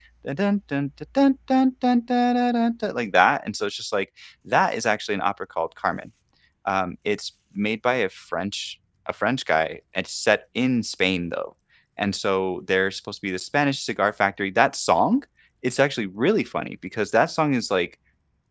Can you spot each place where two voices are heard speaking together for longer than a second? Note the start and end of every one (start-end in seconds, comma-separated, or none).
none